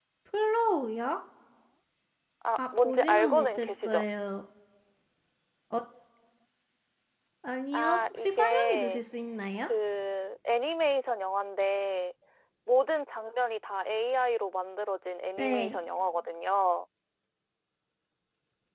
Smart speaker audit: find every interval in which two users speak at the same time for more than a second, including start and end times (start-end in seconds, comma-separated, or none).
2.6-4.0, 7.7-9.0